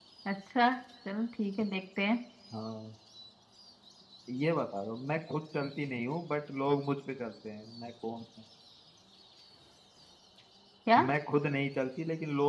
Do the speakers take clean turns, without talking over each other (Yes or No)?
Yes